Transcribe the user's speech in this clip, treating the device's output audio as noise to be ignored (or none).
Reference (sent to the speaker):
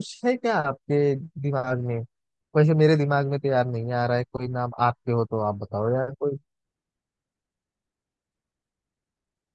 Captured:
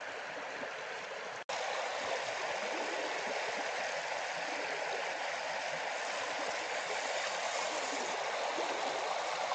none